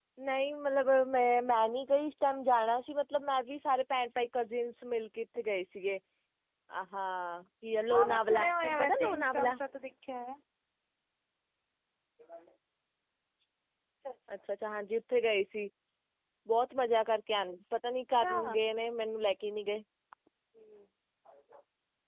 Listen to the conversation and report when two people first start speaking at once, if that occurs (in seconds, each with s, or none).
7.9 s